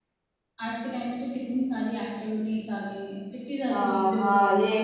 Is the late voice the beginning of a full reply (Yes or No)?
Yes